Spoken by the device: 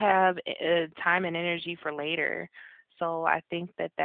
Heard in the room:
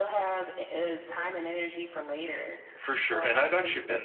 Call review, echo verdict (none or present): present